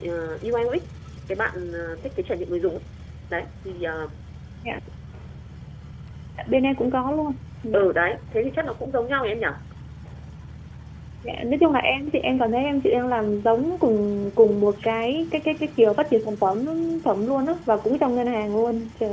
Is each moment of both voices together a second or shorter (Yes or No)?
Yes